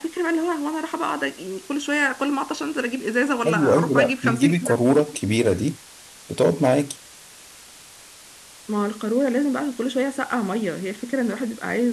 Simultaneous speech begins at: 3.5 s

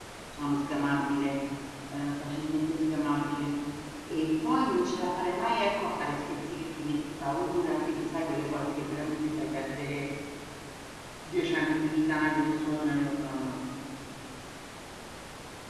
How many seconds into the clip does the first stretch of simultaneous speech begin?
none

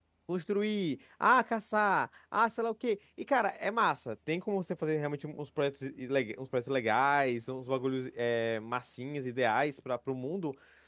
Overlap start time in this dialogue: none

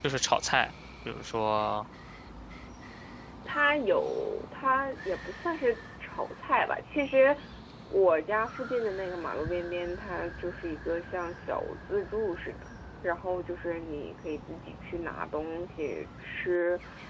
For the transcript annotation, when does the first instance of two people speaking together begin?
none

